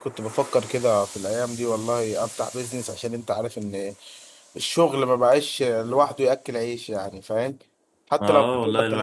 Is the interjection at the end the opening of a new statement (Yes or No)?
Yes